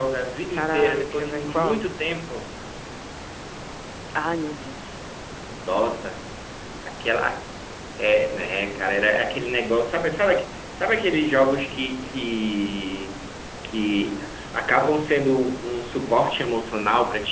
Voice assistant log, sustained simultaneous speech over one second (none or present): present